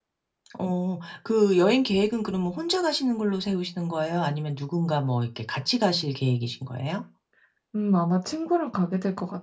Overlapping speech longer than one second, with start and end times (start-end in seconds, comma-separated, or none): none